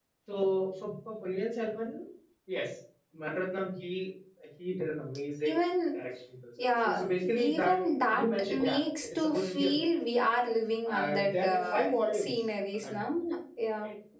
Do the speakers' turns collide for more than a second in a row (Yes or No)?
Yes